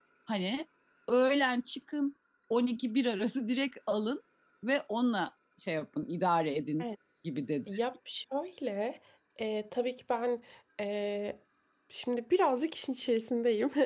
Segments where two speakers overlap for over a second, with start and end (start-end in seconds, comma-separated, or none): none